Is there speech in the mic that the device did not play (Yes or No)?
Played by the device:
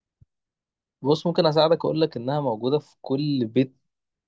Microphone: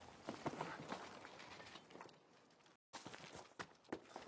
No